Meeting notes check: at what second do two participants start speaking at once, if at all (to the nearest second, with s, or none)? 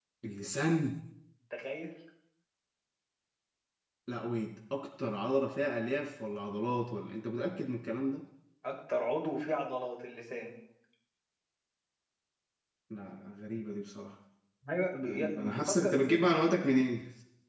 15 s